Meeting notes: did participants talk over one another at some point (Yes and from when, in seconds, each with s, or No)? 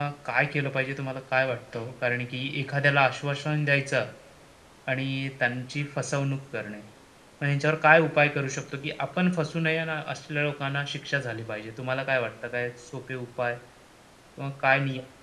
No